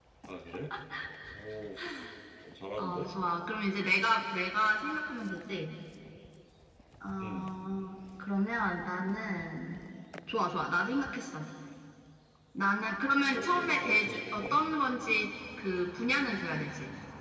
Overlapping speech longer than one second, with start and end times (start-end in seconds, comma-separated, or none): 13.3-14.6